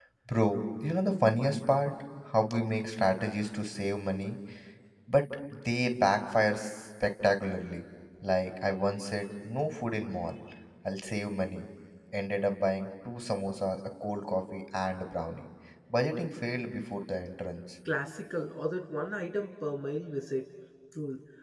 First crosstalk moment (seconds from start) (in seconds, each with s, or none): none